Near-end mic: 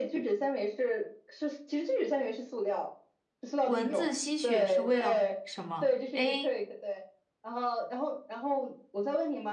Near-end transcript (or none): 蚊子吸血是为了什么？A.